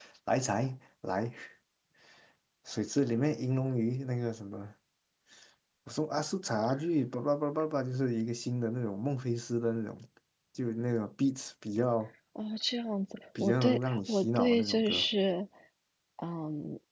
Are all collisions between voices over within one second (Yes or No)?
No